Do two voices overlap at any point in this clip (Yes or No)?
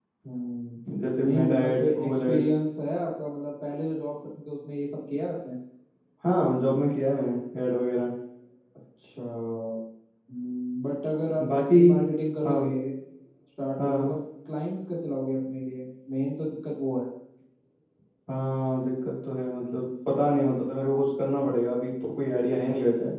Yes